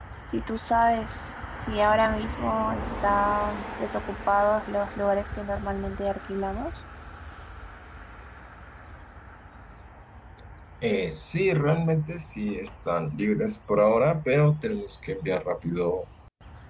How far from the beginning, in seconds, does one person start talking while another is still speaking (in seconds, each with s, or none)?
none